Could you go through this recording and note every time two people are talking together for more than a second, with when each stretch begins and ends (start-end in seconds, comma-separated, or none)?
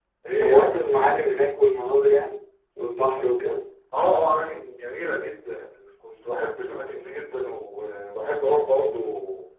none